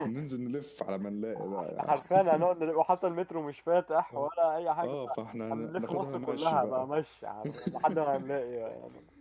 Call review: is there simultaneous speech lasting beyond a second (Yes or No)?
Yes